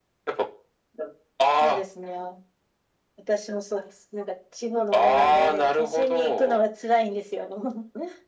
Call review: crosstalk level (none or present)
present